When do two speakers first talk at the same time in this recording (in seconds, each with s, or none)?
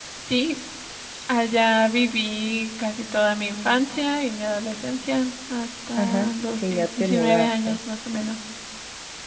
6.0 s